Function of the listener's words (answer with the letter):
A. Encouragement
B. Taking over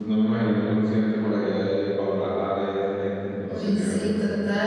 B